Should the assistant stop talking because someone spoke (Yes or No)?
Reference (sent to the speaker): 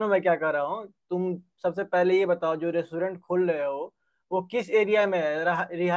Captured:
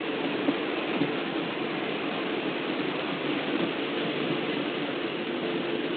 No